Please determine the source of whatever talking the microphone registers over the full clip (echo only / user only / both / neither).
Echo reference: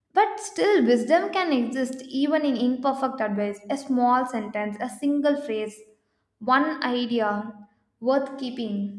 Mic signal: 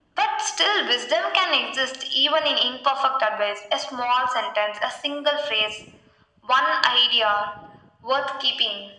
echo only